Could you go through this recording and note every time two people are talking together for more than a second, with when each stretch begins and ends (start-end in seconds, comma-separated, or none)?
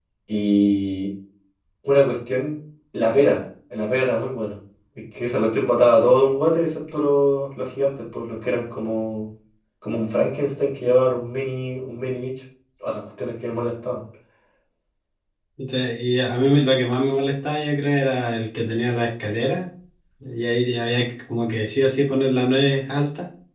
none